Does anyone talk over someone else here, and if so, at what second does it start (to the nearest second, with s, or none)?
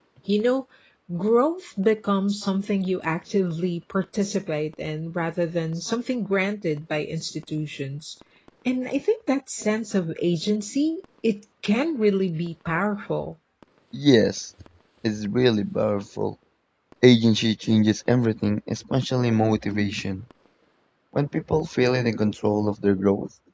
none